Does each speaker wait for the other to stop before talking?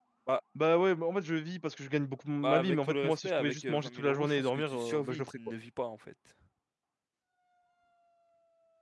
No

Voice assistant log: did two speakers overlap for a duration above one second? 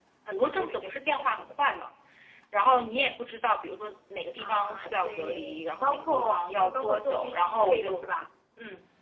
Yes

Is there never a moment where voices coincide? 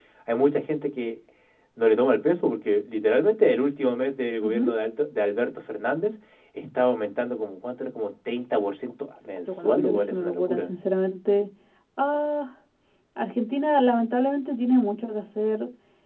No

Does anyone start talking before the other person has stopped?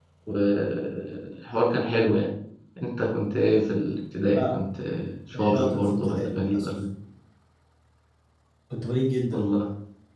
Yes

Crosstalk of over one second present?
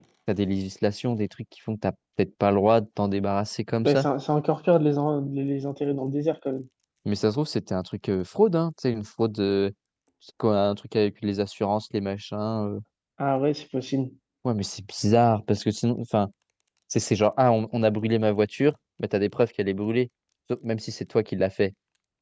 No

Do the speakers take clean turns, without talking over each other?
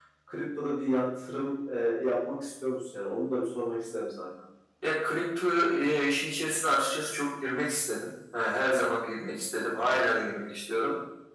Yes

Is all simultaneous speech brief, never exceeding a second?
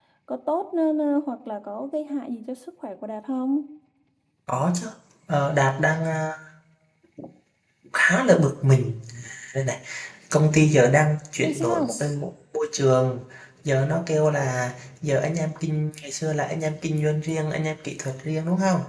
Yes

